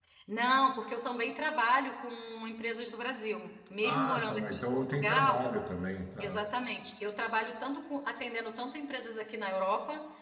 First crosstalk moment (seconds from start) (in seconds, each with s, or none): 3.8 s